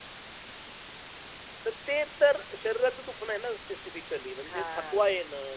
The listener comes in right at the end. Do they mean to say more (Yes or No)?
No